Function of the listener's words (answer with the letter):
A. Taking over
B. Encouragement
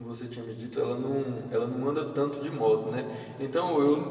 B